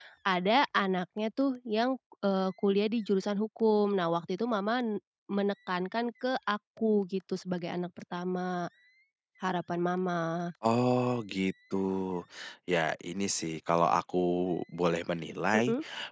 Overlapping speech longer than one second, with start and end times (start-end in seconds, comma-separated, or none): none